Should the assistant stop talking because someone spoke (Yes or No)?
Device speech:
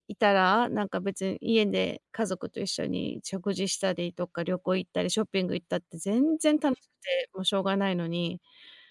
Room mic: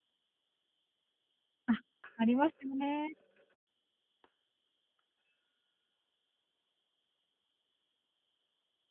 Yes